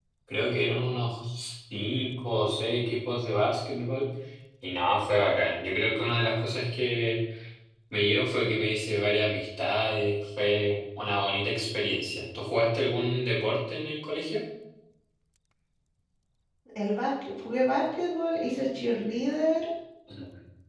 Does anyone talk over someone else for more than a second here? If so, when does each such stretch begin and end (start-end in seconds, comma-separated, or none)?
none